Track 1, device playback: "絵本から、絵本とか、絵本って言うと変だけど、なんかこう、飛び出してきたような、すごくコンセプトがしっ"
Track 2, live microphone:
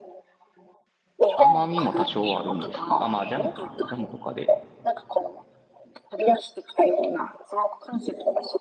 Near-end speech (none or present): present